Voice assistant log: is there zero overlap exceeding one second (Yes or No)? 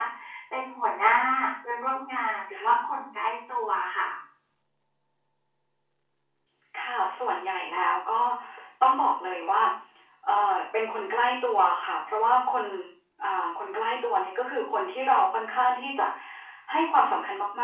Yes